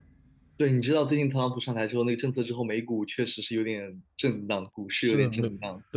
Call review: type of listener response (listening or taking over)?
taking over